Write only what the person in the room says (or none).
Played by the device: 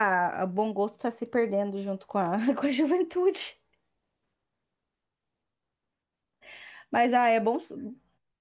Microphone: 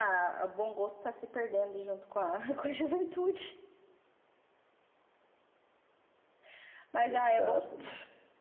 Exato.